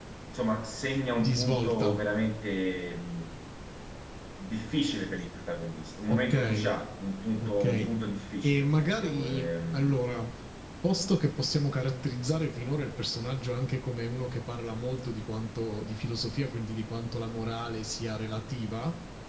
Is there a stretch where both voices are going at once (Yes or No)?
Yes